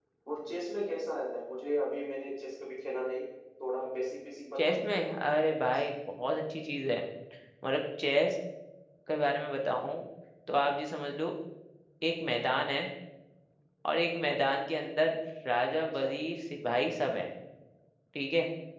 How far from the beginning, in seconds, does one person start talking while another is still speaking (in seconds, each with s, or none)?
4.6 s